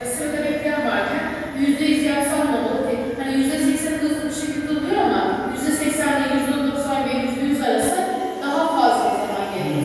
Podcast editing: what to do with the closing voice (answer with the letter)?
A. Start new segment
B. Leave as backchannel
A